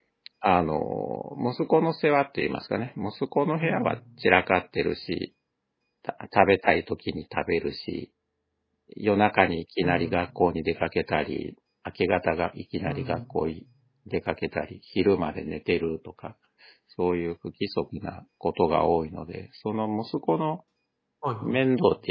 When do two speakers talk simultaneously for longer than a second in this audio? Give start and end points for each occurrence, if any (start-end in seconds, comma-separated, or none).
none